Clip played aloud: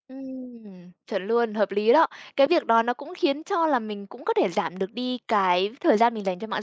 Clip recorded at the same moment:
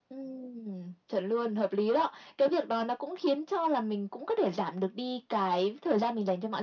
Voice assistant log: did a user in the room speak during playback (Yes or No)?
No